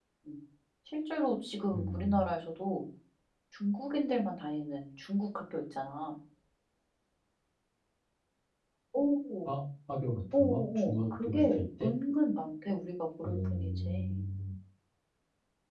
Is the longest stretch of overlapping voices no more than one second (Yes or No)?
No